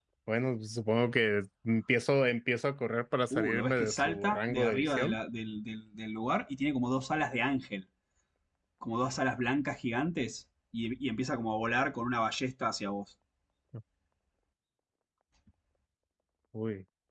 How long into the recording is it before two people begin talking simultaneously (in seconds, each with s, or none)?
3.3 s